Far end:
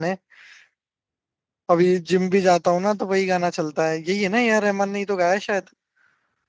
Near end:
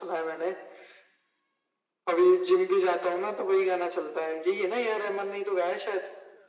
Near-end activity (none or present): none